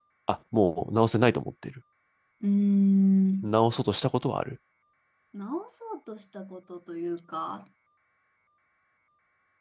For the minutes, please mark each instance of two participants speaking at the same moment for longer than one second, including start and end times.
none

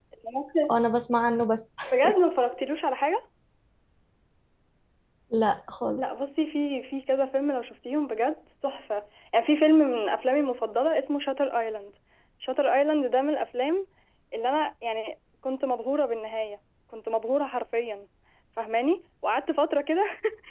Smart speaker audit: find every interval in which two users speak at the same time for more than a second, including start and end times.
none

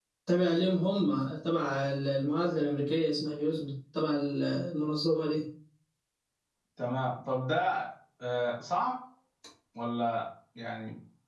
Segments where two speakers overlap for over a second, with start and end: none

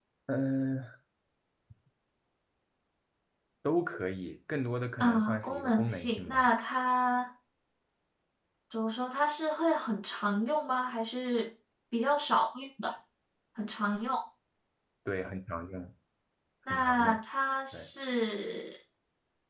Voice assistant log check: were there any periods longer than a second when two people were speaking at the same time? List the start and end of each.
5.0-6.5

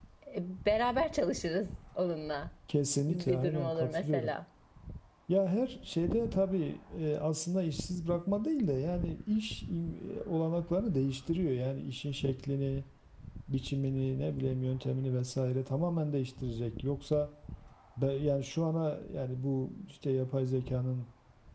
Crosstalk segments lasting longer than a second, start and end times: 3.1-4.3

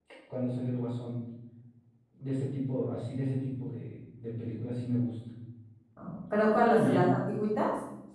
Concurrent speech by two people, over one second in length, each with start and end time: none

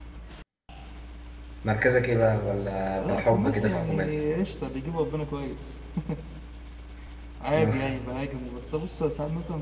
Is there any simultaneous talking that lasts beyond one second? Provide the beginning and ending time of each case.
3.0-4.2

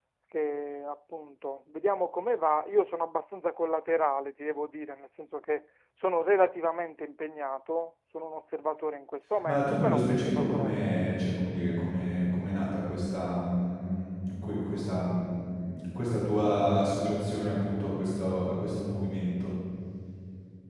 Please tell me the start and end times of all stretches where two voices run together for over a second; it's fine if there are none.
9.4-11.1

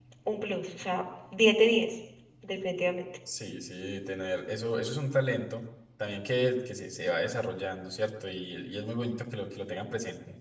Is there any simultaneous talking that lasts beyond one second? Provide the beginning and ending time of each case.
none

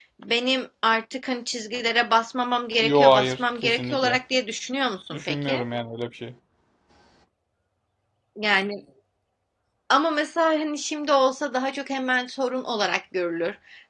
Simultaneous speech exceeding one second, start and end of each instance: 2.8-4.2

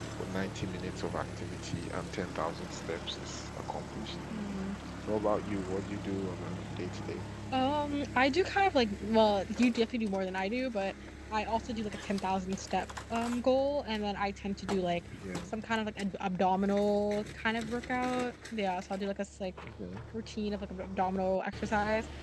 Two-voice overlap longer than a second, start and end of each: none

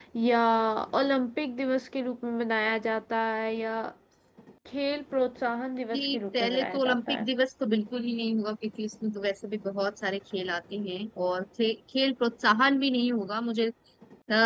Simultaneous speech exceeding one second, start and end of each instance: 5.9-7.3

